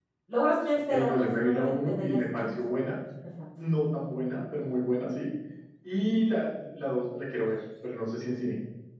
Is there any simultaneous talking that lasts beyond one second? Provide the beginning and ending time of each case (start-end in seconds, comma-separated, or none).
0.9-2.5